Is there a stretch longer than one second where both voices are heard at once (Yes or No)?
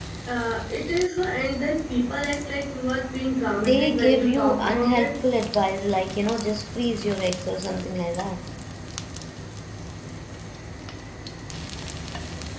Yes